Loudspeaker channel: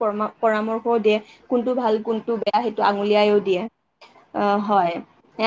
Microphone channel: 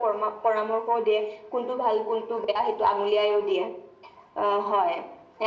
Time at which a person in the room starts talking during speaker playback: none

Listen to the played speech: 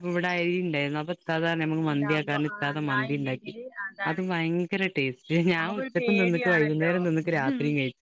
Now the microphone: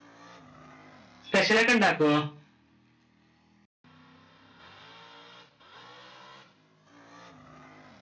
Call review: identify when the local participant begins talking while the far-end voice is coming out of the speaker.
1.2 s

